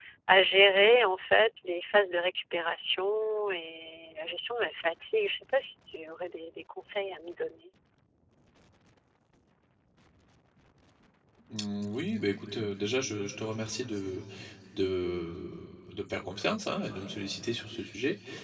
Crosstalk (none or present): none